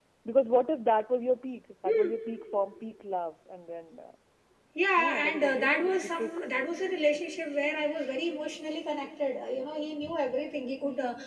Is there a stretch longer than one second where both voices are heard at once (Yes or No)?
Yes